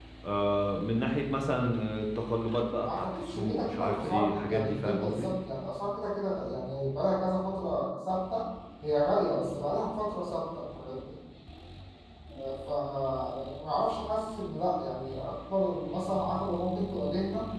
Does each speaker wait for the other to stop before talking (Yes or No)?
No